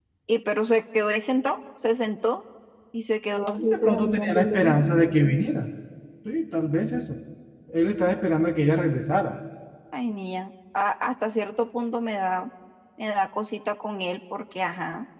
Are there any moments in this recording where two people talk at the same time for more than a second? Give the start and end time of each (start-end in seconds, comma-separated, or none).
3.6-4.8